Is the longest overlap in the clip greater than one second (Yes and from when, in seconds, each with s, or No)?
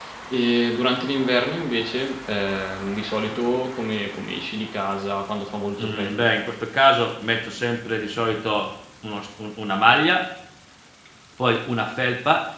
No